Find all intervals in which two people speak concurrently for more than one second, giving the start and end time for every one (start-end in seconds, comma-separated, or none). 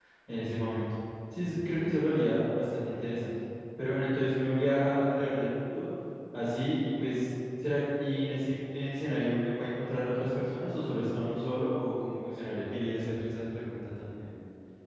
none